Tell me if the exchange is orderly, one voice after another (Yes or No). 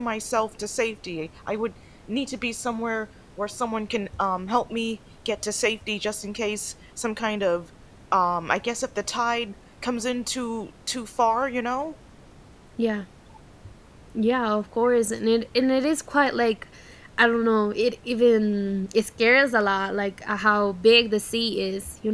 Yes